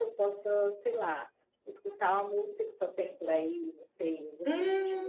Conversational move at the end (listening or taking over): taking over